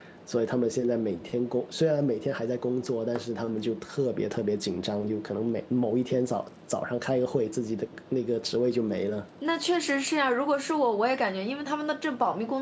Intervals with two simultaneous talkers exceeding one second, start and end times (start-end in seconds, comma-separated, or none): none